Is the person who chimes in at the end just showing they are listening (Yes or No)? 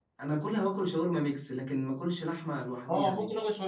No